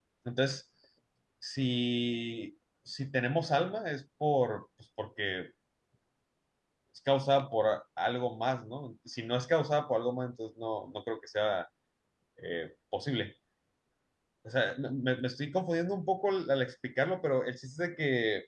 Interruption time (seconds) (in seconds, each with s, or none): none